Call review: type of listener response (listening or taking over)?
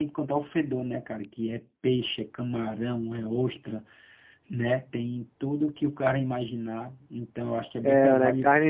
taking over